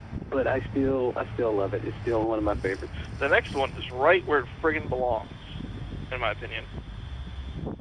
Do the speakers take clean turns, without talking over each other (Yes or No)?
Yes